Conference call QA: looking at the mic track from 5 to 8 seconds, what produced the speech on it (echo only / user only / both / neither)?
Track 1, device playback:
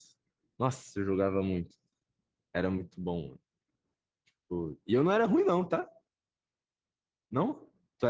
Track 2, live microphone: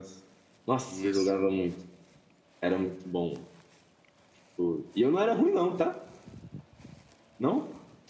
echo only